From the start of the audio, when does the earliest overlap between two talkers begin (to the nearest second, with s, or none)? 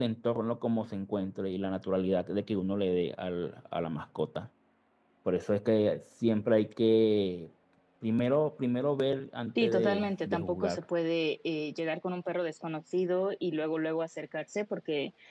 10 s